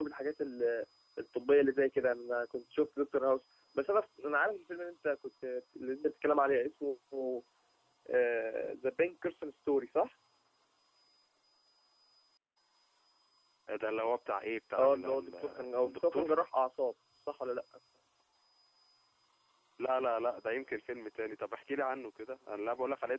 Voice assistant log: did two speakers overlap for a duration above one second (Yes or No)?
Yes